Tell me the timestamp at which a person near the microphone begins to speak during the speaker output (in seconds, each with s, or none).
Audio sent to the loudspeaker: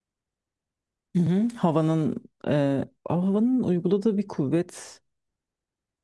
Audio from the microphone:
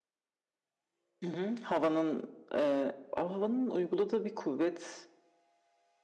none